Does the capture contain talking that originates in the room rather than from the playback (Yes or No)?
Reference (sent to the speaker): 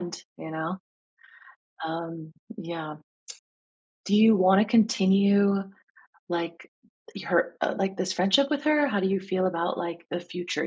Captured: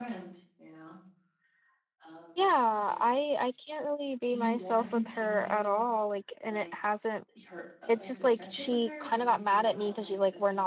Yes